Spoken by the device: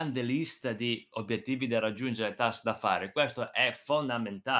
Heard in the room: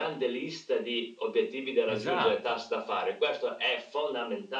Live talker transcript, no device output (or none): Esatto.